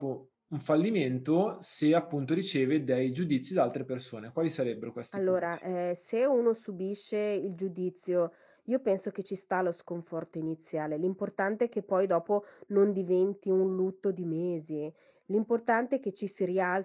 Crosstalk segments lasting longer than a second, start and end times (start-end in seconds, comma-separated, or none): none